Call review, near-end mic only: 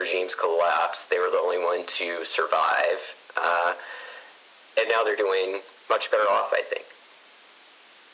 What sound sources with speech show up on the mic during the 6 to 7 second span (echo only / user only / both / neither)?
echo only